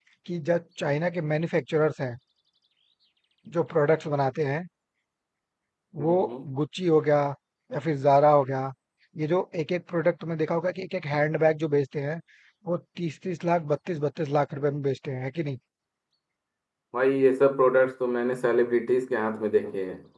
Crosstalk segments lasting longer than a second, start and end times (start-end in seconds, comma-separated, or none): none